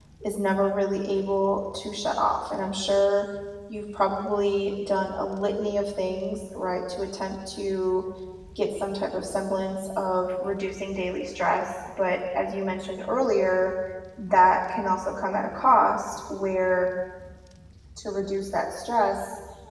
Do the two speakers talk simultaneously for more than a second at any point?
No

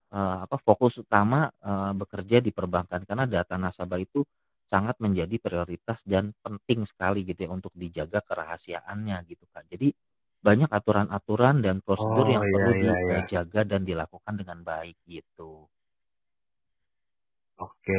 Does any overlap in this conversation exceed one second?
Yes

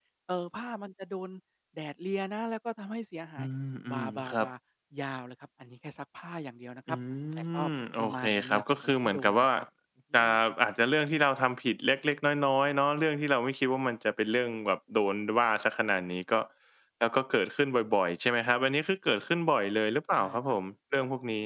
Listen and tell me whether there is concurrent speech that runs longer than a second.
Yes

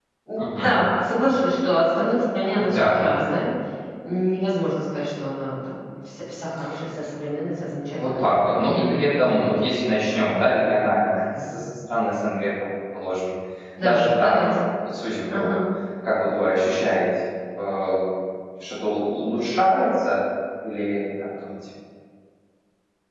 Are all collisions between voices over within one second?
Yes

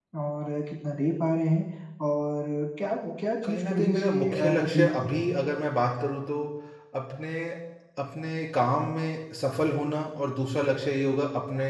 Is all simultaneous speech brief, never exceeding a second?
No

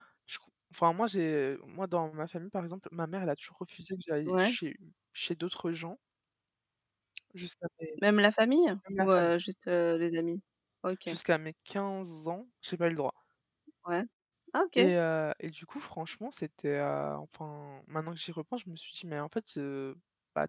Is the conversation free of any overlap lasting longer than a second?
Yes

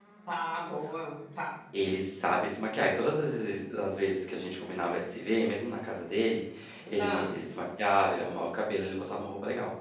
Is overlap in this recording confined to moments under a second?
Yes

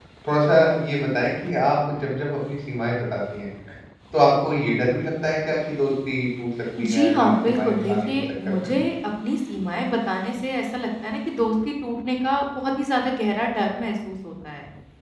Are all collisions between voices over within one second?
No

